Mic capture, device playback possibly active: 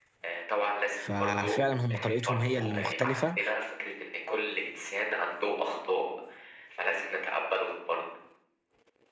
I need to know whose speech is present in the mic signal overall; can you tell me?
both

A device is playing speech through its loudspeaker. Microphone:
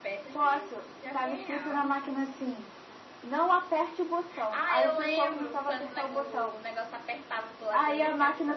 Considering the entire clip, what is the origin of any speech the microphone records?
both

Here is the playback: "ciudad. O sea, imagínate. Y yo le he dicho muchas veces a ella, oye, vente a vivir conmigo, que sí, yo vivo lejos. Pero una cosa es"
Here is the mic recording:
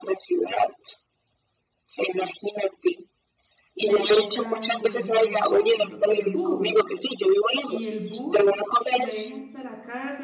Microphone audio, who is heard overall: both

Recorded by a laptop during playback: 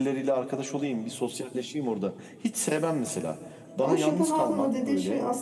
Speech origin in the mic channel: both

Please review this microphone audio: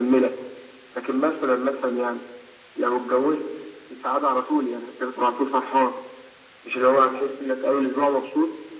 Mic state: echo only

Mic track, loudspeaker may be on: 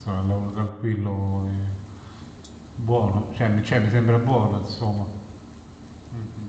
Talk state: user only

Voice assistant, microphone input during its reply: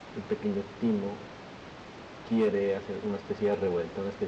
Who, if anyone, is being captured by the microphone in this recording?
user only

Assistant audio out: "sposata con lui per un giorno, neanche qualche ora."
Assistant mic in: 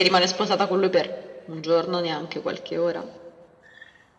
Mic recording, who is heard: echo only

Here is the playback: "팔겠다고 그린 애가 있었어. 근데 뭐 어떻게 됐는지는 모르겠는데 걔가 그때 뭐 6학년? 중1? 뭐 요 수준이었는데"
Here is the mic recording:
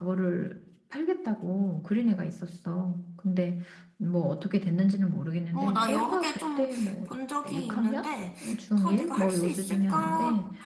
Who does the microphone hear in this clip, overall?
both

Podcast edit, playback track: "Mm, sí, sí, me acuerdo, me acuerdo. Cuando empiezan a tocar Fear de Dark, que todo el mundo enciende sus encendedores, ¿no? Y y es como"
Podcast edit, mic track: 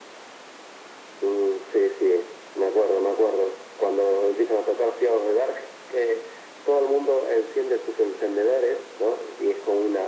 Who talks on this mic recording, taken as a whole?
echo only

